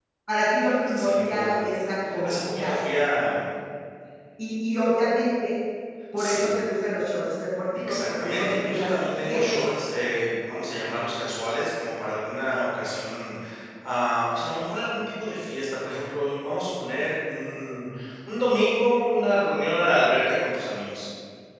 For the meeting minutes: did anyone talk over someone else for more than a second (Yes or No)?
Yes